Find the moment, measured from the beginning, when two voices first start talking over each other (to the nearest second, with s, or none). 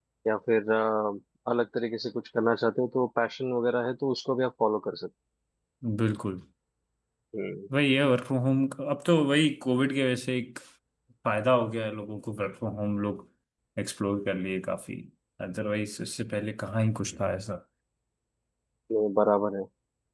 none